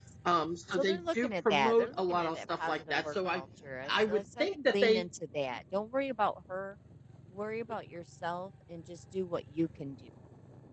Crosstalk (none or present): present